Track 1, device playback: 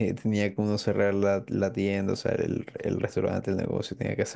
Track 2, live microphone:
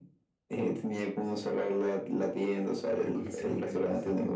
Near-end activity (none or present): present